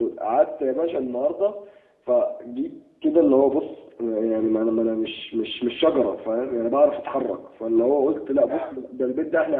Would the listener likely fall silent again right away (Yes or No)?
Yes